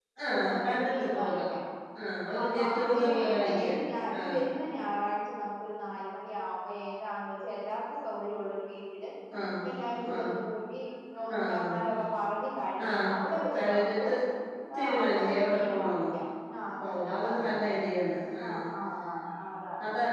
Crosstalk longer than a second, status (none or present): present